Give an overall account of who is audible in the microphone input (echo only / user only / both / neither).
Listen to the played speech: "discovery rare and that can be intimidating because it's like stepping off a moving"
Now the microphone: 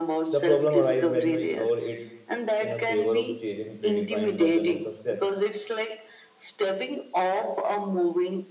both